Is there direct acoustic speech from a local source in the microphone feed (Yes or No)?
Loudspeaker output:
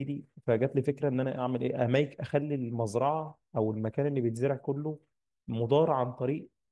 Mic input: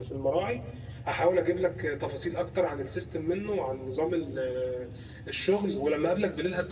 Yes